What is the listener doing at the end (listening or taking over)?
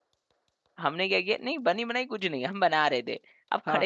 listening